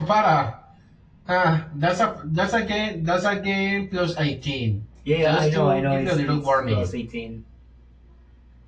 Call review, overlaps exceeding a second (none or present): present